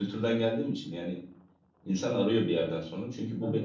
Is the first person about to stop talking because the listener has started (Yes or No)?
No